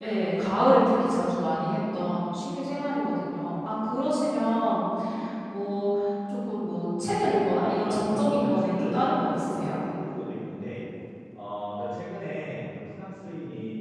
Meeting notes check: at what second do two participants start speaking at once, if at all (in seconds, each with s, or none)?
7.8 s